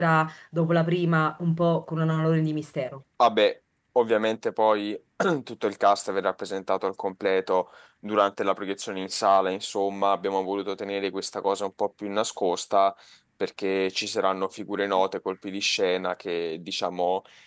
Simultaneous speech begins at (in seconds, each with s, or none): none